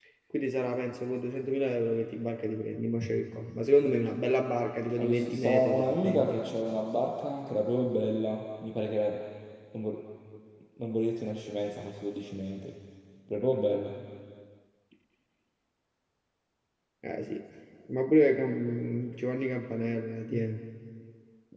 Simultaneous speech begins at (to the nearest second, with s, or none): 5 s